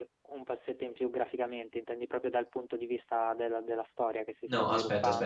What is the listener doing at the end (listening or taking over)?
taking over